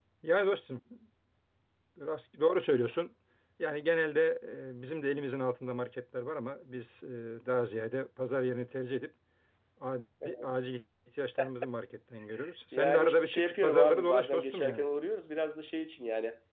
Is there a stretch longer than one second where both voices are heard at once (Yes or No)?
Yes